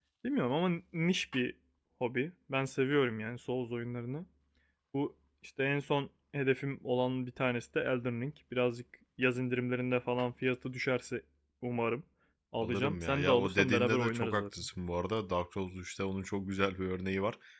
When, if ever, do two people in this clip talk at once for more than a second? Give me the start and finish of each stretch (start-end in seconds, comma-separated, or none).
12.6-14.4